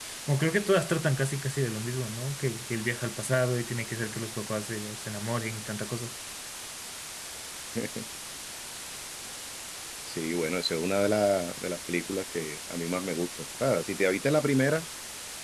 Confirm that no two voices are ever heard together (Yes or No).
Yes